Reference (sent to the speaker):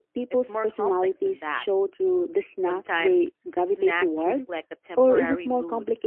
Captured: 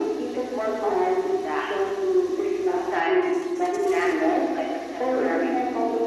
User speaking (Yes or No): No